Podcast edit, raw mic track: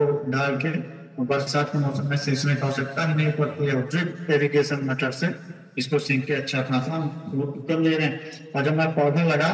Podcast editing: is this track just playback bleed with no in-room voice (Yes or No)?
Yes